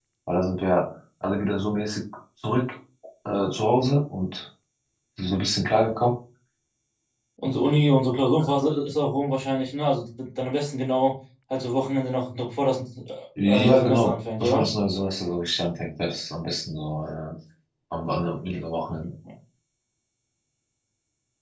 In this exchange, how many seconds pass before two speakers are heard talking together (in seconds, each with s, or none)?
13.4 s